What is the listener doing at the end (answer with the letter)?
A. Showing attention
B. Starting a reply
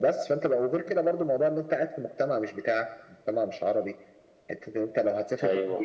A